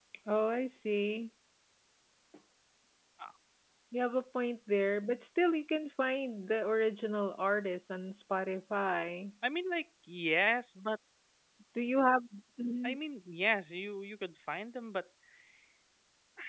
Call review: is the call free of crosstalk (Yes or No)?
Yes